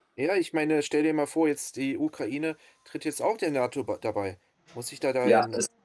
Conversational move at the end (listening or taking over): taking over